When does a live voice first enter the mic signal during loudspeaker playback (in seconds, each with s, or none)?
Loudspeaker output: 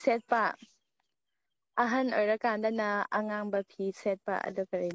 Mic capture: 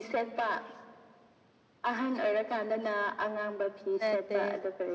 4.0 s